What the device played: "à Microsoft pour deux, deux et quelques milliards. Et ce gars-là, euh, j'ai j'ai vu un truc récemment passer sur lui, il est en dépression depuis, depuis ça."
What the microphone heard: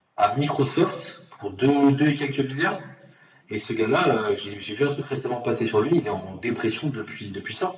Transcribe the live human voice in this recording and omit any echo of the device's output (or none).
none